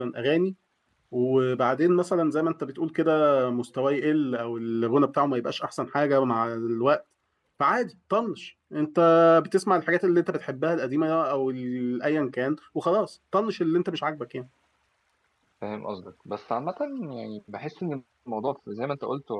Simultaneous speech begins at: none

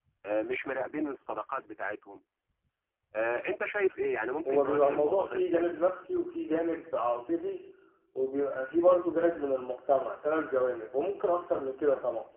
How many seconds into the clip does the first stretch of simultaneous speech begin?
4.5 s

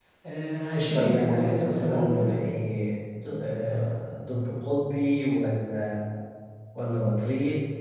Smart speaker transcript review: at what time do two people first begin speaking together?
0.9 s

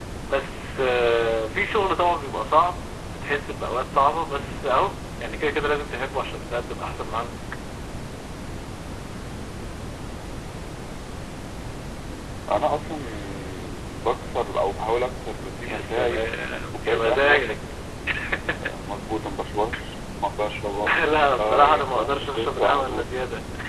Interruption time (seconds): 15.7 s

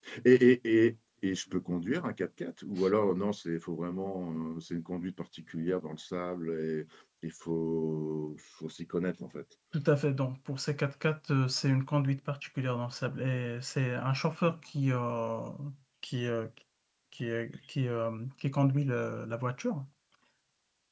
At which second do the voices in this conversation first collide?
none

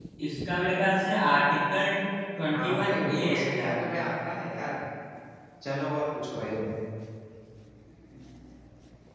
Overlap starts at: 2.5 s

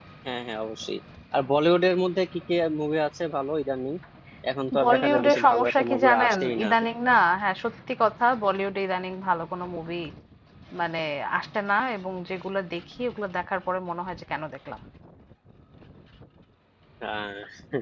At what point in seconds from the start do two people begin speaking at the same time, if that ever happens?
4.8 s

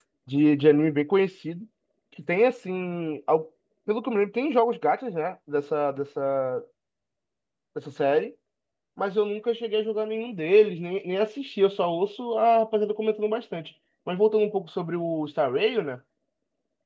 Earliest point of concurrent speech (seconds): none

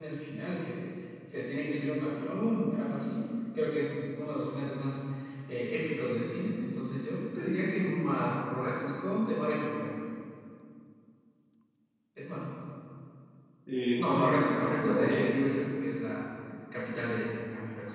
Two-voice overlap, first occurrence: 14.0 s

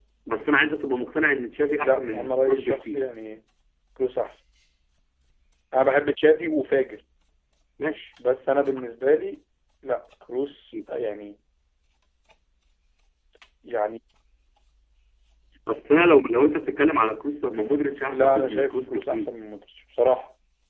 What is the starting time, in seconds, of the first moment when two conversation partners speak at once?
1.7 s

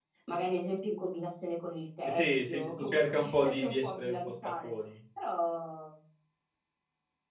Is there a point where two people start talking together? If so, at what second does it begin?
2.0 s

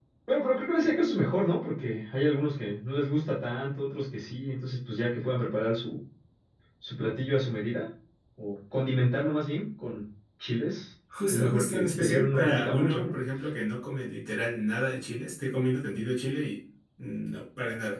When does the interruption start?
11.1 s

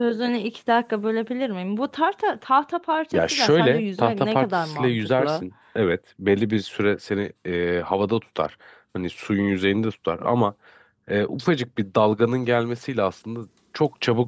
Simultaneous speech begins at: 3.1 s

